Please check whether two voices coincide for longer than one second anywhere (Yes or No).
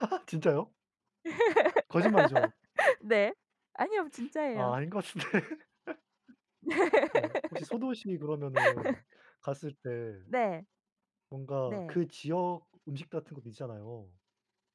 No